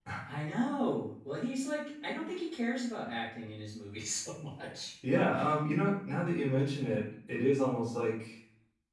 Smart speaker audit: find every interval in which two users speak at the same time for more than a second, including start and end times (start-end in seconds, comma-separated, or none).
none